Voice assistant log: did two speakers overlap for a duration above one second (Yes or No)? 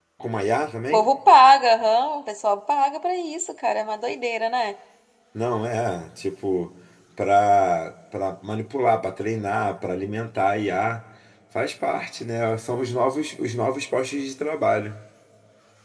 No